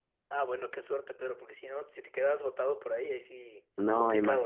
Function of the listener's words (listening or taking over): taking over